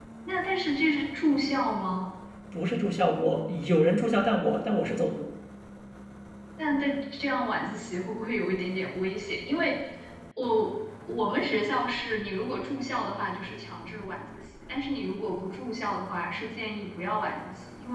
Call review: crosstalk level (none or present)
none